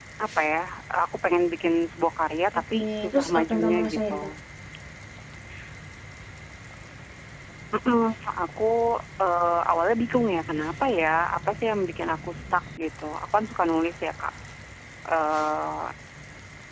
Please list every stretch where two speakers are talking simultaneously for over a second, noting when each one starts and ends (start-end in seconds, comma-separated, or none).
2.7-4.1